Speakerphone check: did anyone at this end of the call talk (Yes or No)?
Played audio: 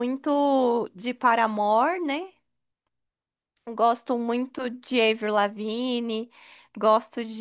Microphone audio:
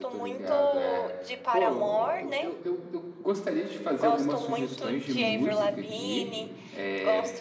Yes